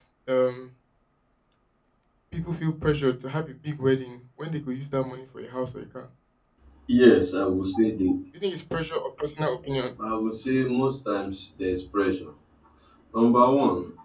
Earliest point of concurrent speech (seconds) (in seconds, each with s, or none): none